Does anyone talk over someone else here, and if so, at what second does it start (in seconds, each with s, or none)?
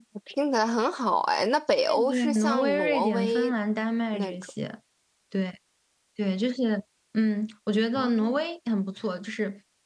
1.7 s